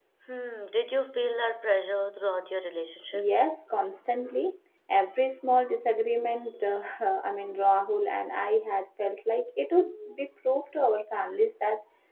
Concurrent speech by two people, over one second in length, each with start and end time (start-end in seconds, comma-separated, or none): none